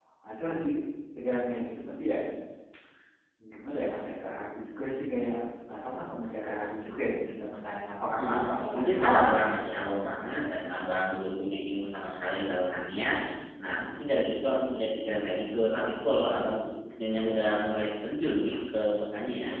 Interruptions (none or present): present